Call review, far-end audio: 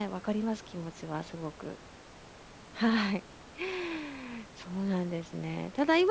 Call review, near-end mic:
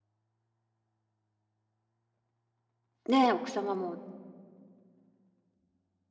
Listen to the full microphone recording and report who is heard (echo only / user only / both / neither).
user only